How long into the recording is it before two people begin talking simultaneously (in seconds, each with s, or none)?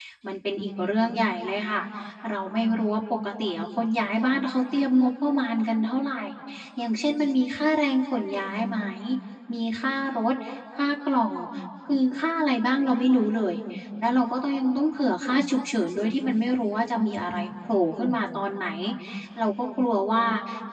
none